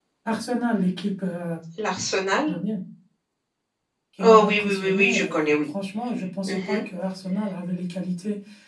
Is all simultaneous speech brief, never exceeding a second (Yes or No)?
No